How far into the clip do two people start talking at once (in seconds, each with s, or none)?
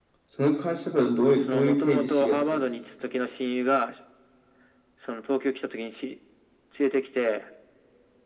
1.3 s